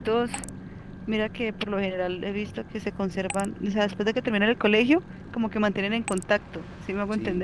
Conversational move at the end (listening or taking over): taking over